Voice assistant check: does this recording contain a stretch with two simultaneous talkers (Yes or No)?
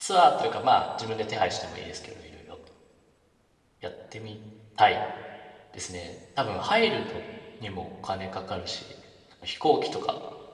No